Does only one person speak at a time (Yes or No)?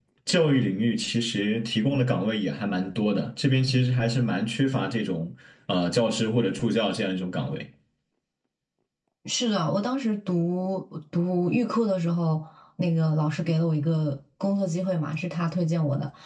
Yes